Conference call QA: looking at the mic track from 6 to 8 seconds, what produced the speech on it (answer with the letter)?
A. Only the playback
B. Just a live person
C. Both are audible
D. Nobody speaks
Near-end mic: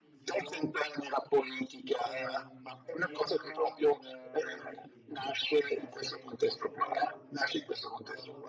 C